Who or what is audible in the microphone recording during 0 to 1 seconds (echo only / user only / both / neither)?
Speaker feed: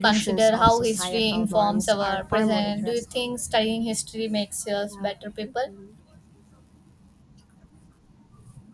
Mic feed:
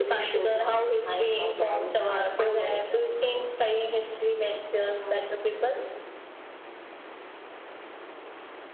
echo only